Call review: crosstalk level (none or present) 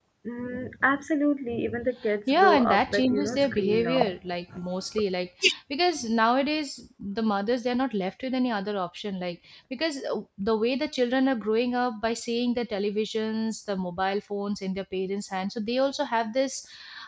present